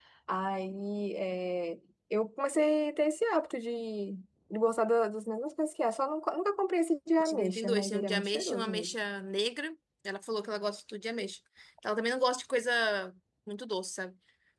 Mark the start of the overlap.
7.2 s

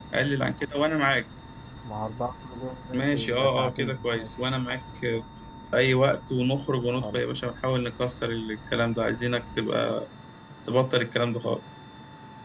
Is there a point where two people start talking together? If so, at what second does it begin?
2.9 s

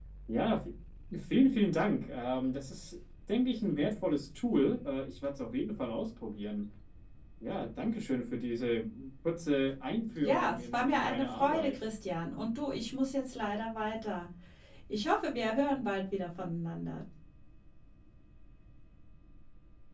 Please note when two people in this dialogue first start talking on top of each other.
10.2 s

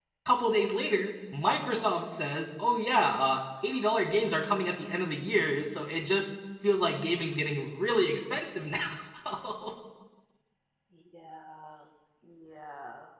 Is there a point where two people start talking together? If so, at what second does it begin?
none

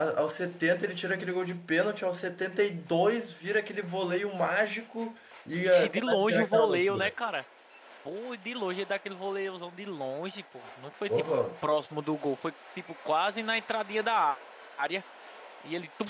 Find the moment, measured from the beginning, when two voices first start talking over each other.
5.6 s

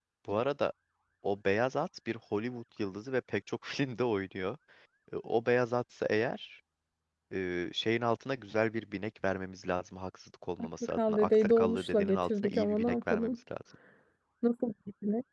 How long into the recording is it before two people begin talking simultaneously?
10.9 s

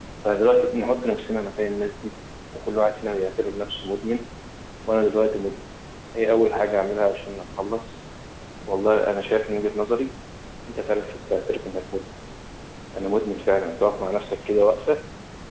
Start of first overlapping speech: none

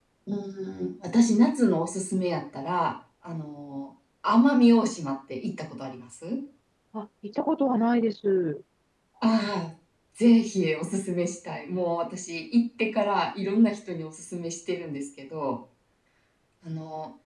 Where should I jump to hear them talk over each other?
none

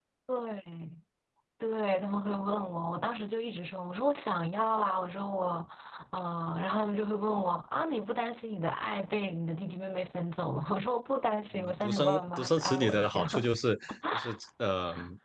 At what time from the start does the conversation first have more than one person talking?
11.5 s

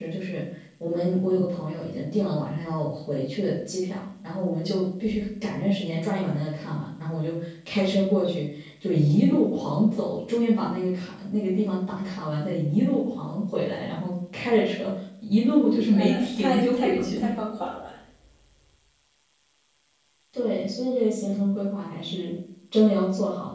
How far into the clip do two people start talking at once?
15.9 s

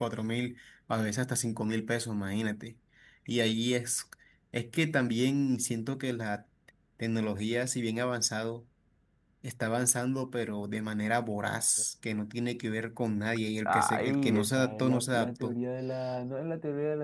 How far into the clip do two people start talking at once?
13.7 s

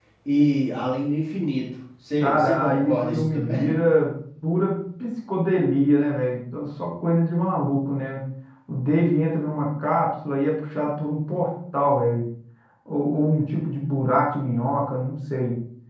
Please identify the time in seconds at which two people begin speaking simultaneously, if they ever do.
2.2 s

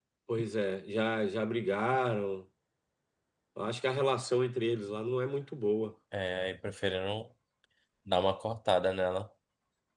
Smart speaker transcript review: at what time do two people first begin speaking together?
none

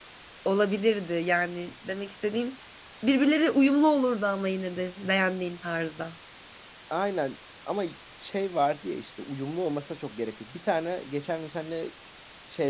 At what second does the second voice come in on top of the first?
none

